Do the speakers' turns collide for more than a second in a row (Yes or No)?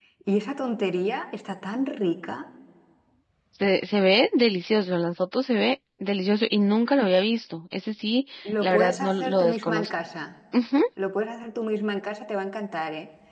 Yes